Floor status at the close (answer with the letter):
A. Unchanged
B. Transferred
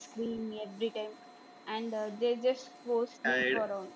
A